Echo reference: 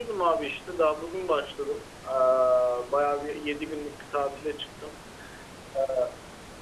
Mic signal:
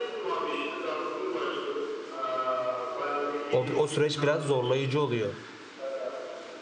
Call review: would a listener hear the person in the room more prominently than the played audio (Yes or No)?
Yes